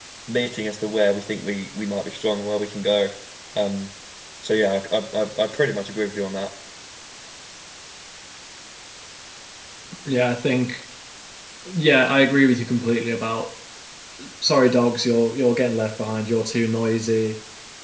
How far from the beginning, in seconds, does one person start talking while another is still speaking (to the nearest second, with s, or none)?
none